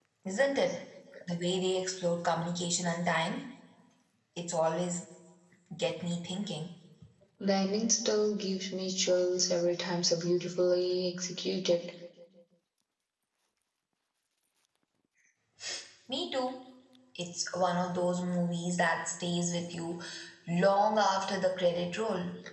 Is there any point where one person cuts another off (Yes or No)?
No